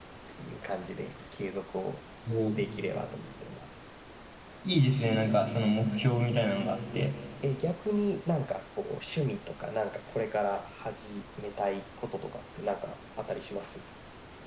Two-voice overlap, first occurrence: none

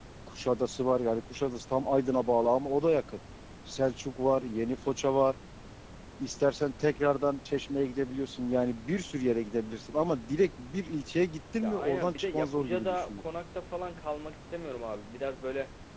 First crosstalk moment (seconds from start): 11.6 s

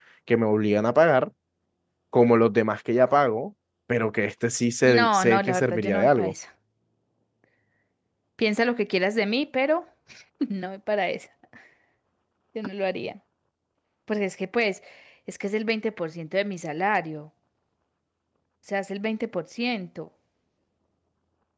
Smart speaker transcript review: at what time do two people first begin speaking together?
4.8 s

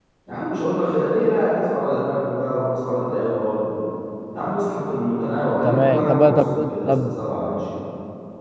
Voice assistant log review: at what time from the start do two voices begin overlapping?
5.6 s

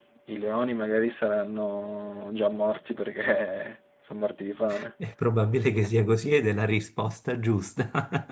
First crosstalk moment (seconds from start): none

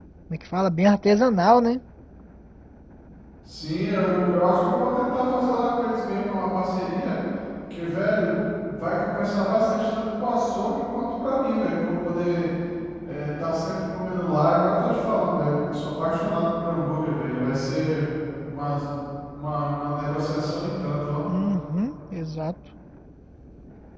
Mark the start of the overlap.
none

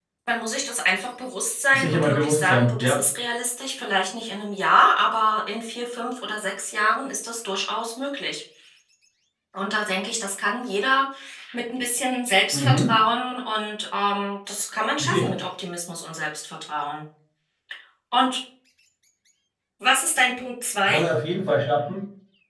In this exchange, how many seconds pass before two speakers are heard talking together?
1.7 s

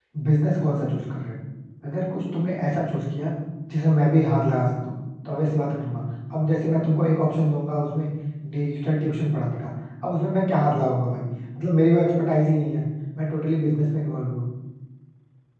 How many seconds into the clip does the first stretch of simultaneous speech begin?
none

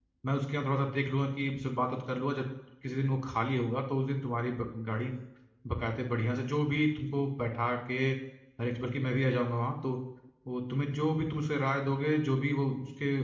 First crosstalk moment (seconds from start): none

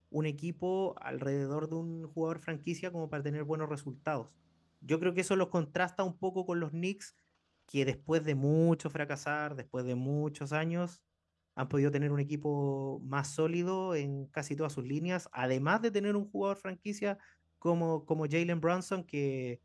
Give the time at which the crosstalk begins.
none

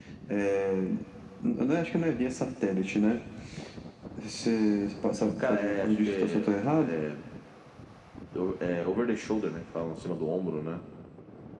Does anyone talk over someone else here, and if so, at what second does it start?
5.4 s

